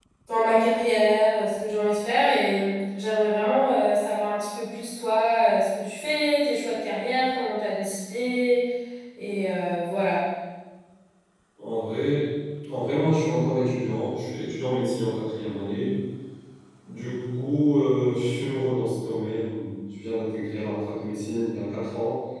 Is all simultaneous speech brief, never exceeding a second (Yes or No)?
Yes